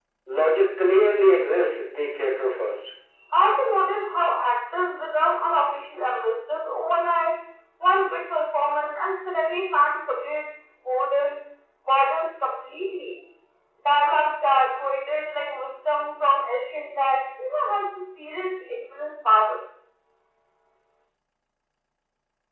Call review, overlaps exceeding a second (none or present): none